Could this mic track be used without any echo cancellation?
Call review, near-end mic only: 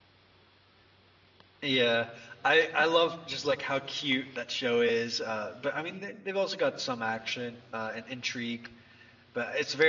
Yes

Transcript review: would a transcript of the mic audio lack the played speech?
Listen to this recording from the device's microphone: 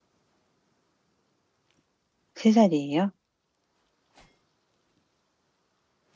Yes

